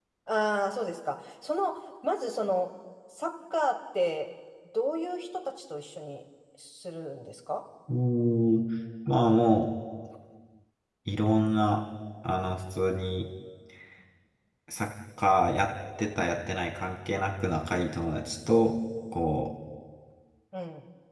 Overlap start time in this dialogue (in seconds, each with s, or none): none